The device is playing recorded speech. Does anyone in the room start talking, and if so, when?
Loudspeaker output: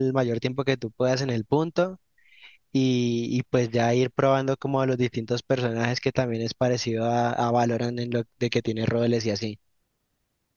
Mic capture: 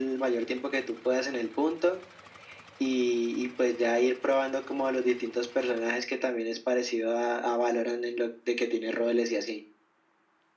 none

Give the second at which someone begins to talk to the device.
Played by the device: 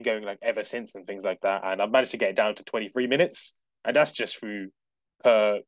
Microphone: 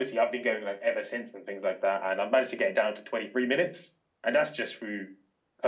none

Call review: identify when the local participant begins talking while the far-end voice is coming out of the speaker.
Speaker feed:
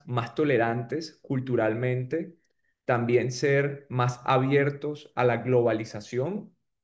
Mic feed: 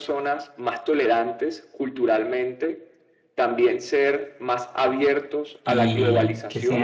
6 s

